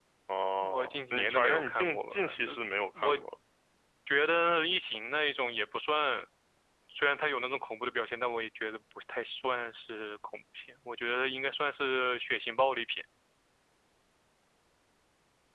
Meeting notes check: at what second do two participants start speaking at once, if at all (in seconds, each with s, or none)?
0.7 s